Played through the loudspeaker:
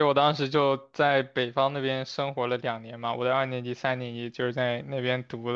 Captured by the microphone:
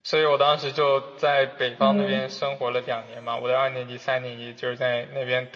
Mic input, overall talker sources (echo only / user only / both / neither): both